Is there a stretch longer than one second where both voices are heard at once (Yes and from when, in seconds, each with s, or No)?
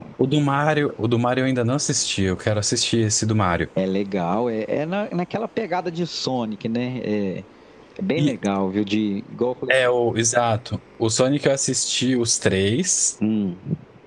No